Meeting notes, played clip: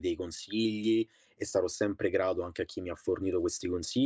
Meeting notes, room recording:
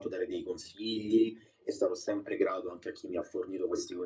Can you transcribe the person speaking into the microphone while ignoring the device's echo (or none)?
none